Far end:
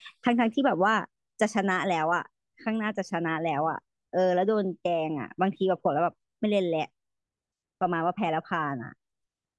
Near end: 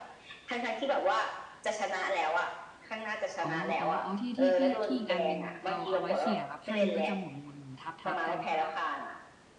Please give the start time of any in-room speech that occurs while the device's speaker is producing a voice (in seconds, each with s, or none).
3.4 s